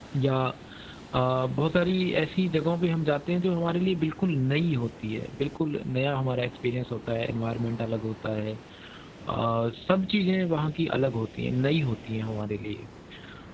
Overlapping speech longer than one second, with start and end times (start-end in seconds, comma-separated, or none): none